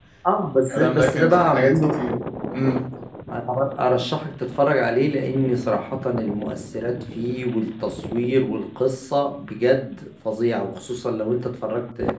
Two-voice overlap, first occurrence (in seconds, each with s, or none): 0.7 s